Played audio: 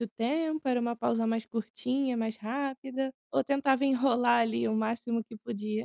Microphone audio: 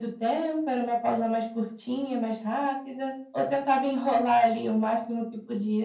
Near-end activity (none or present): none